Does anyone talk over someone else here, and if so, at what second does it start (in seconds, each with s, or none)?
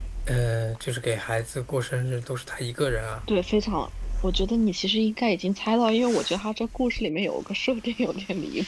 none